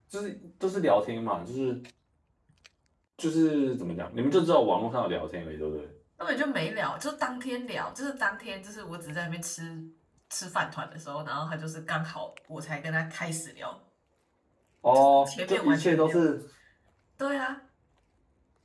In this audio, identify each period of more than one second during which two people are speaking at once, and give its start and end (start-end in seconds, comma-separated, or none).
14.9-16.2